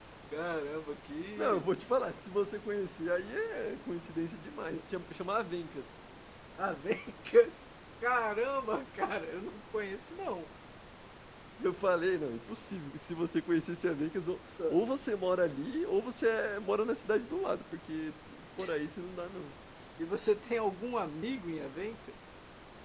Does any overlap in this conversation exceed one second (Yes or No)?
No